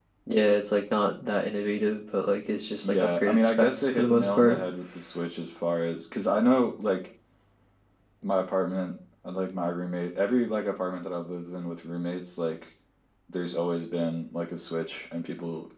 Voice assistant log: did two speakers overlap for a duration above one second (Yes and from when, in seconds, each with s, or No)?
Yes, from 2.8 s